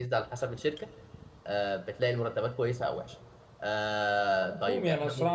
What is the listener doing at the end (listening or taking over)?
taking over